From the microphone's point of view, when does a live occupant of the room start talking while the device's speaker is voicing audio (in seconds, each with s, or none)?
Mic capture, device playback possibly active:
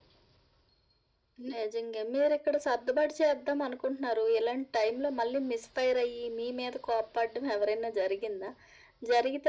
none